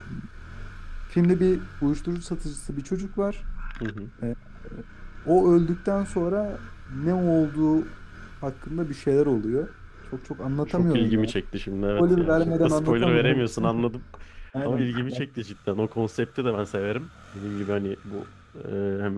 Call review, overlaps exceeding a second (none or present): present